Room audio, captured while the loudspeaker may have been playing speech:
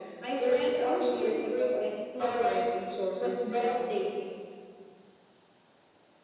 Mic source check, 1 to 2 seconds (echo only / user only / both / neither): echo only